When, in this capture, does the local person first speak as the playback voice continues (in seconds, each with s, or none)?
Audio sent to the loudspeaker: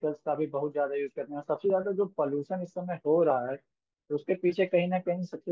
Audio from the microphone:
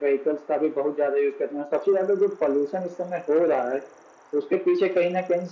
none